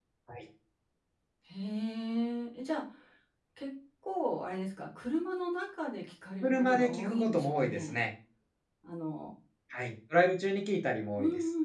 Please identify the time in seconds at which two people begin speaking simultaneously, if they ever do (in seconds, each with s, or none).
6.4 s